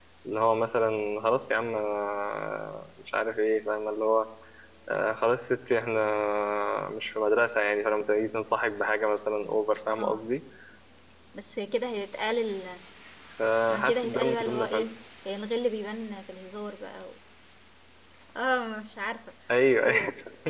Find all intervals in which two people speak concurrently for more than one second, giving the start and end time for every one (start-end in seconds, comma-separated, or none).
13.7-14.9